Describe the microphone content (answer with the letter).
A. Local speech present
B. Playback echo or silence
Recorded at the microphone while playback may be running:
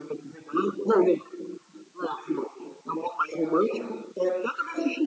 B